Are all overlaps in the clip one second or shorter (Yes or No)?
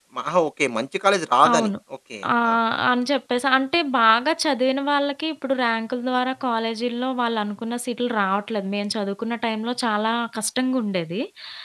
Yes